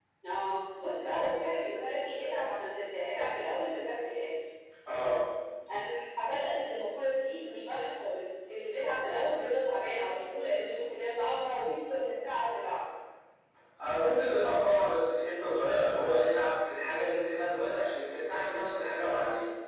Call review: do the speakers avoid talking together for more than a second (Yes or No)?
Yes